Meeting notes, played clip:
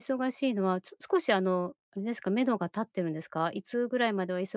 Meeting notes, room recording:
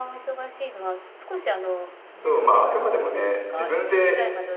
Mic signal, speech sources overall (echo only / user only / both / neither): both